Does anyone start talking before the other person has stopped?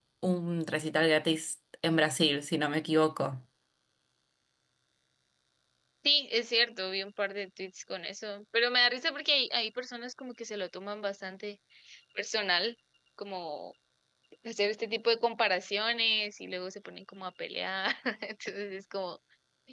No

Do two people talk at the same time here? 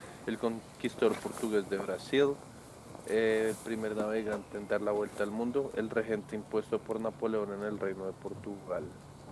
No

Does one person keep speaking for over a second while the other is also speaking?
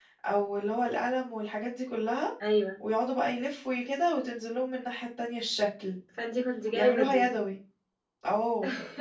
No

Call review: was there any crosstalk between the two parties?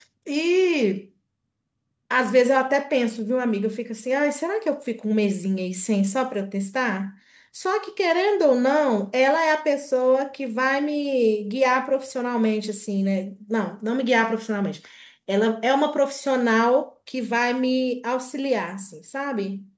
No

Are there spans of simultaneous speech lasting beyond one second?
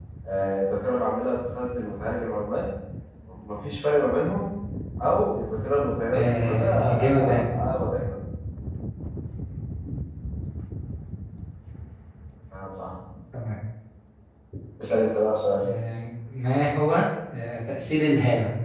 Yes, from 6.1 s

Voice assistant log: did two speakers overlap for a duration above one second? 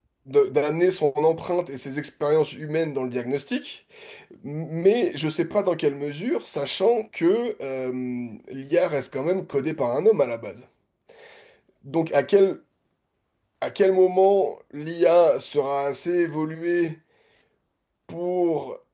No

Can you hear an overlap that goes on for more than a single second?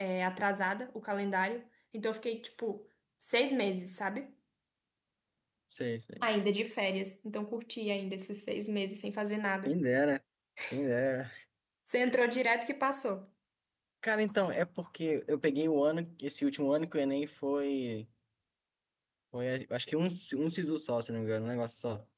No

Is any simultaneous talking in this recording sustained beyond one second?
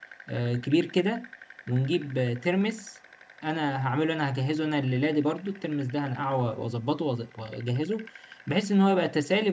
No

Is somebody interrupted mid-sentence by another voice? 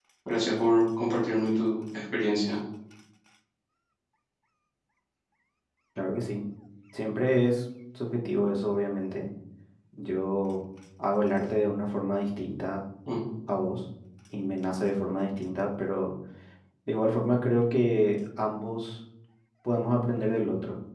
No

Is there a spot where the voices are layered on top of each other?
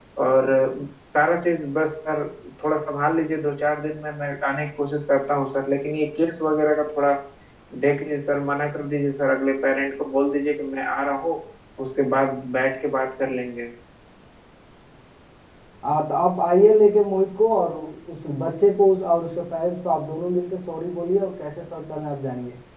No

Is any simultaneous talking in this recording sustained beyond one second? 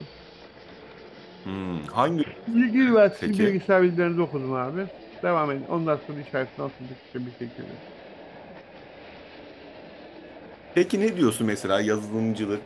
No

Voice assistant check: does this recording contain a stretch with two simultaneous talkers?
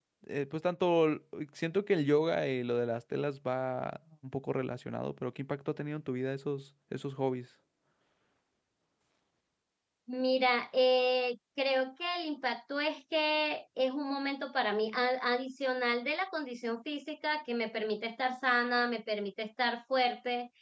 No

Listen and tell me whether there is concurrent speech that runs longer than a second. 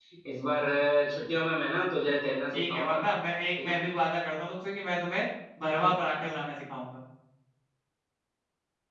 No

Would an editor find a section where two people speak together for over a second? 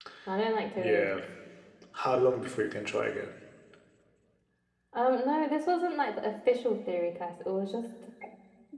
No

